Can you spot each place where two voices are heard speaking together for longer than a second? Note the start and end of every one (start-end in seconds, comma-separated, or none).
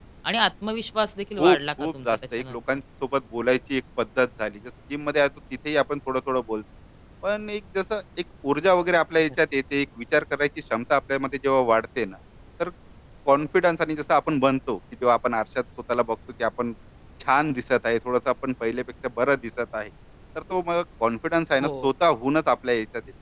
1.4-2.6